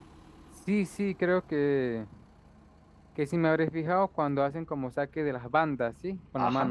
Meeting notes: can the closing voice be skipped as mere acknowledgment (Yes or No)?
No